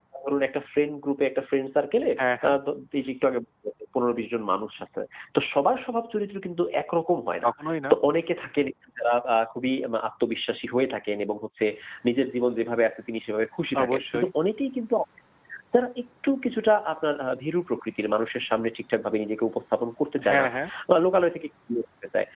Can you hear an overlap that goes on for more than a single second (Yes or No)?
No